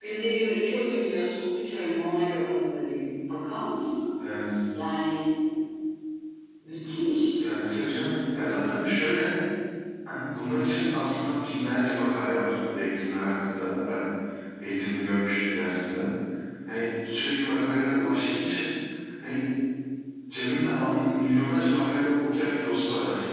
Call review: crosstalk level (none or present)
none